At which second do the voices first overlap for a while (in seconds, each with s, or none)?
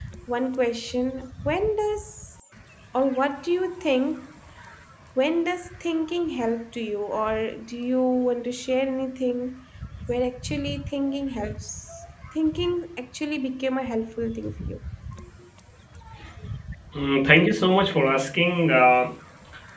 none